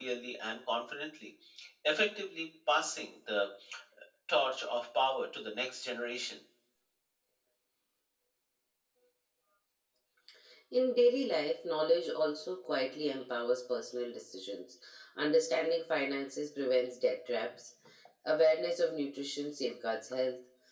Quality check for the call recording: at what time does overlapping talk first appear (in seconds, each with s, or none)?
none